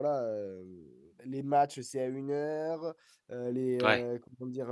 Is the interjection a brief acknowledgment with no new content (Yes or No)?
Yes